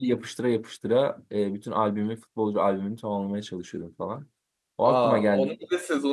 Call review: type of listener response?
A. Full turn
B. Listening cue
A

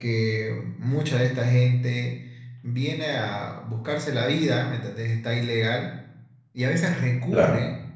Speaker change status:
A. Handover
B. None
B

